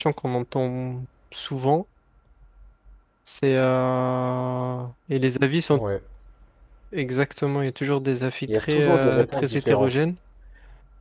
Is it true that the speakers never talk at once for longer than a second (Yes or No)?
No